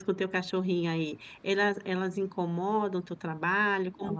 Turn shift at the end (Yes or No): Yes